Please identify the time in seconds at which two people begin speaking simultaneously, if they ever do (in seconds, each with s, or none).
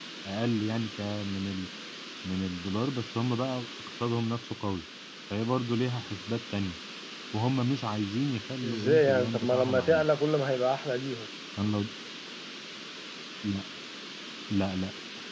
8.6 s